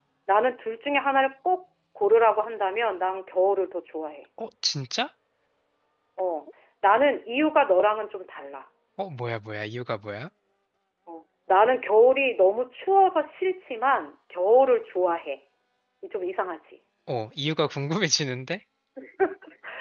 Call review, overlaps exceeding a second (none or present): none